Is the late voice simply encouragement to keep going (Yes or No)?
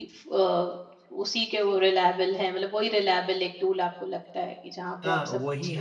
No